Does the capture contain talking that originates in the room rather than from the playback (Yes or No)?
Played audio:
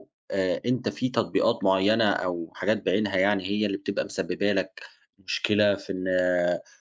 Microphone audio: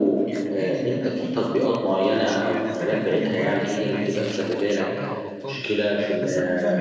Yes